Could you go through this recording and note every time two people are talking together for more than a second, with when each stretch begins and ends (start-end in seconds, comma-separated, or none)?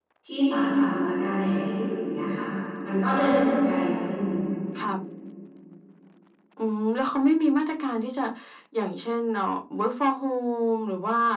none